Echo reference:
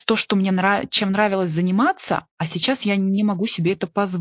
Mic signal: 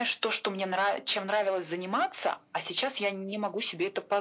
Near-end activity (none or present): none